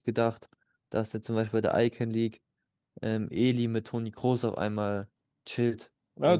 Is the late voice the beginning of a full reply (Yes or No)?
Yes